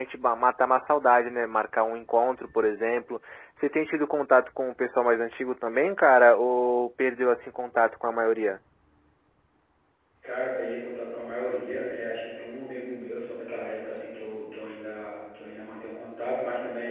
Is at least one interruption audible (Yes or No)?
No